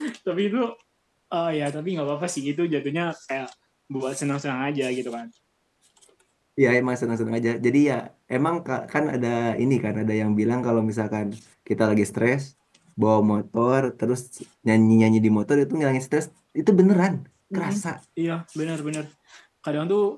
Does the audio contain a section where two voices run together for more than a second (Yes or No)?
No